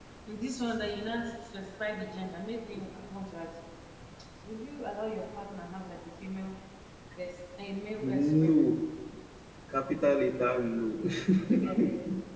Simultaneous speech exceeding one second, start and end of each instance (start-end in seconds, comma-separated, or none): none